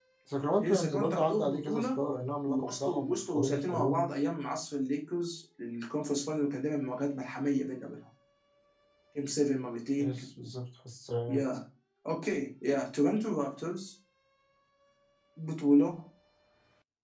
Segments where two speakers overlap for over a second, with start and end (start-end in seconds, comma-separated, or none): 0.6-2.0, 2.5-4.1